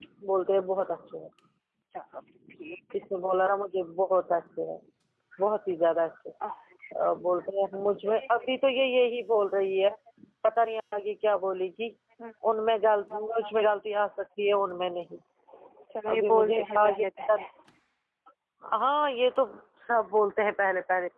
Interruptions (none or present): present